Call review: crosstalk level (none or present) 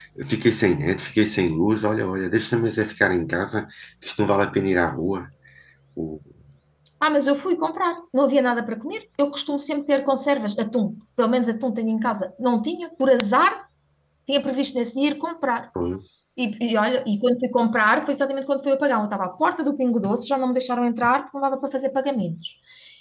none